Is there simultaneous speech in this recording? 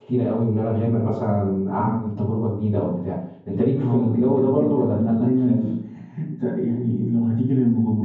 Yes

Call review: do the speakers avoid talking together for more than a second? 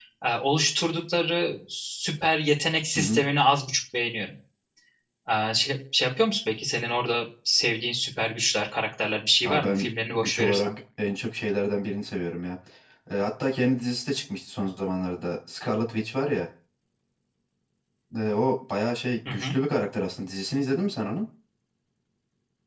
No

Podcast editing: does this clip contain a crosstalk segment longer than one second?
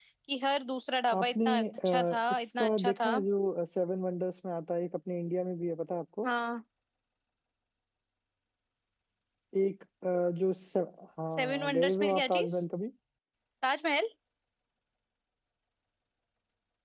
Yes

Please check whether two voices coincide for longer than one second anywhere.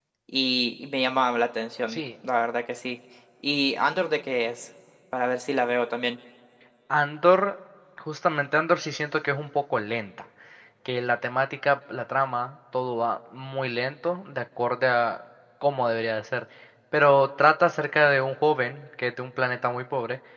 No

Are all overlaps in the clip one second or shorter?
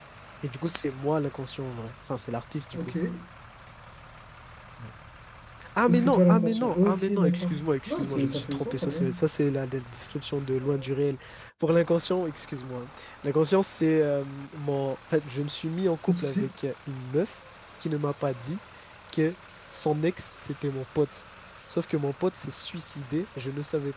No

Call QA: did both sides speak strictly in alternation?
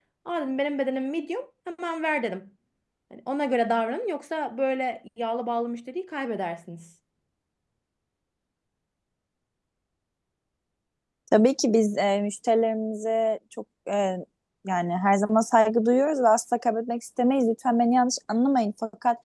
Yes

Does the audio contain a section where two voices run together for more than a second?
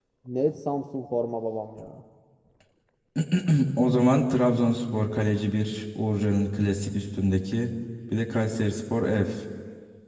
No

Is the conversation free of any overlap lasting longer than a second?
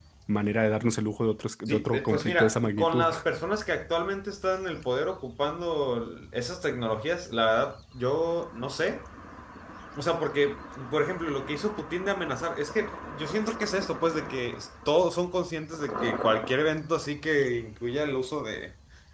No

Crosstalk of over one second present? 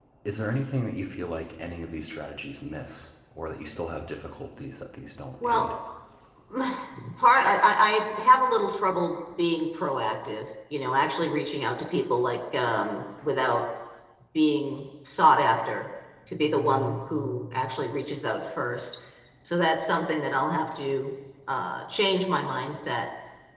No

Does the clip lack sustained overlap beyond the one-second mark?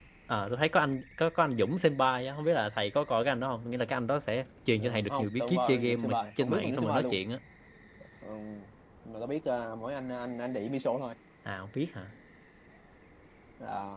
No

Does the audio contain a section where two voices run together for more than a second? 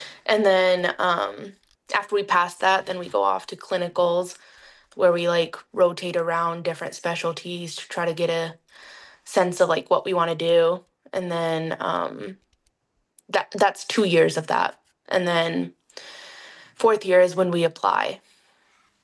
No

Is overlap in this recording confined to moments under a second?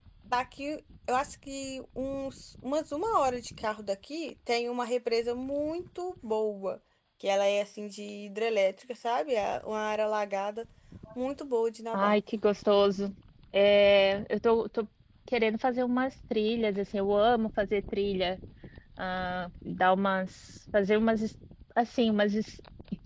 Yes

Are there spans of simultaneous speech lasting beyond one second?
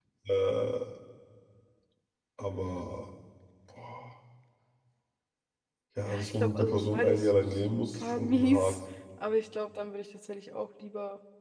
Yes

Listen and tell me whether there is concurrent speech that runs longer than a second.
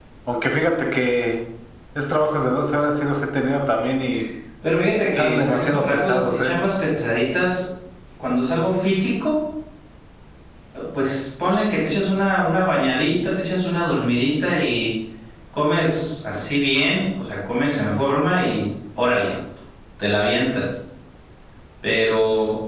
Yes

